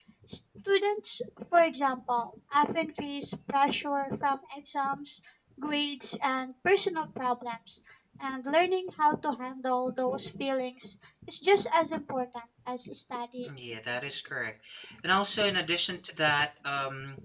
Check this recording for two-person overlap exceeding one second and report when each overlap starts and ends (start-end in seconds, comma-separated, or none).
none